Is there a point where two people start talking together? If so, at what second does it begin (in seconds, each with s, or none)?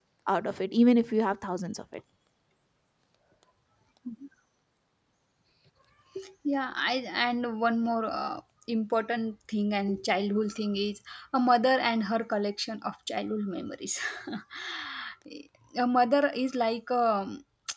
none